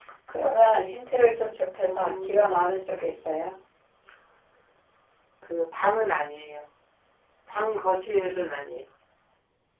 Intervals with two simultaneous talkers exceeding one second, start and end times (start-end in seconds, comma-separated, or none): 1.8-3.2